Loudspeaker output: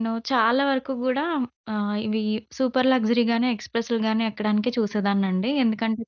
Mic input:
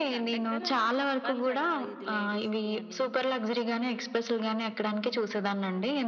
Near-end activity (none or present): present